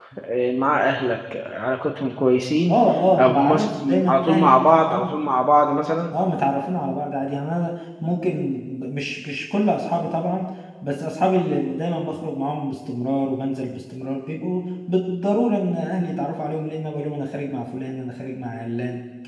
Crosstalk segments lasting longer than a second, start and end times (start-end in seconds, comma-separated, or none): 3.2-5.2